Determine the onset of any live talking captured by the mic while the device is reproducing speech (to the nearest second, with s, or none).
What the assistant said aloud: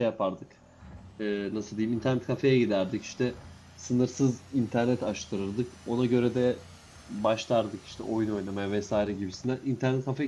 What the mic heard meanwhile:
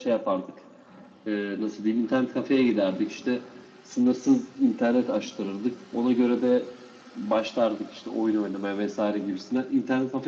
none